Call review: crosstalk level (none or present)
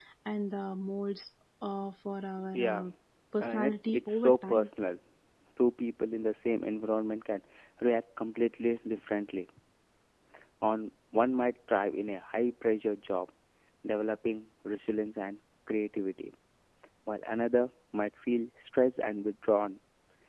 present